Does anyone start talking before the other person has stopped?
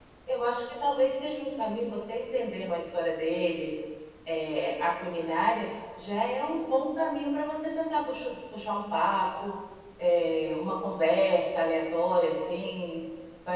No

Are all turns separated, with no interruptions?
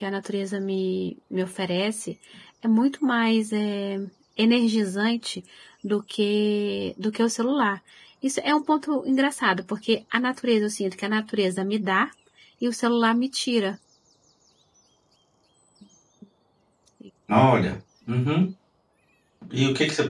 Yes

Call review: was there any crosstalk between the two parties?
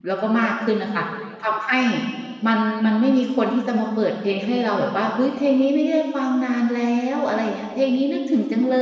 No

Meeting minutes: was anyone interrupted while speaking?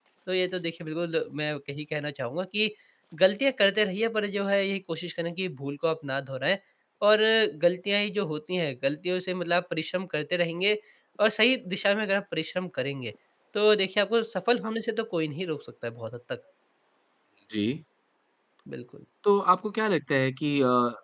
No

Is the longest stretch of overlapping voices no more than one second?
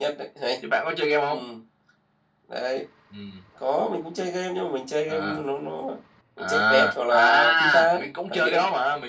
No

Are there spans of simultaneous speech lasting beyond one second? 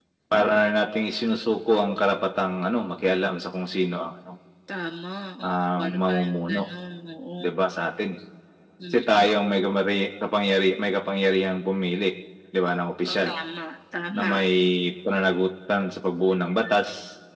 Yes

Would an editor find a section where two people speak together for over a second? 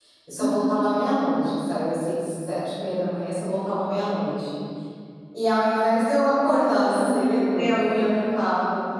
Yes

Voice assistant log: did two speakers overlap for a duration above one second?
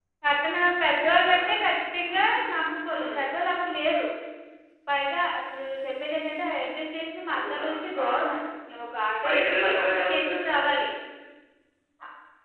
Yes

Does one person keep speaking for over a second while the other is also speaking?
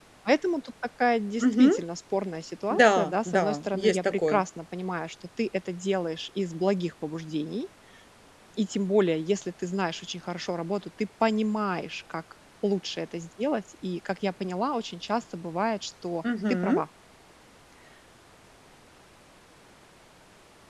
Yes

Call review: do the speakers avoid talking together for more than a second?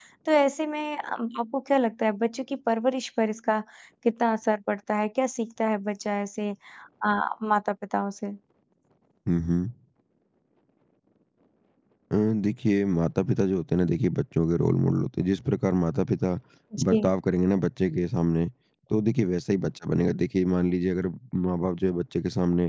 Yes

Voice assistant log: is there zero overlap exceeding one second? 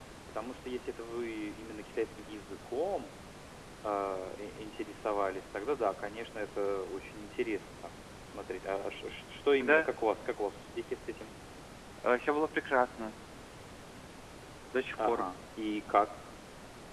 Yes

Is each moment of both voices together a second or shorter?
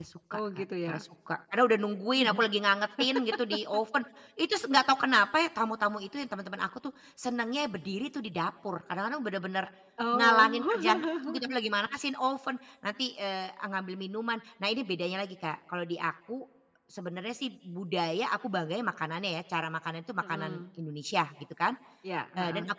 No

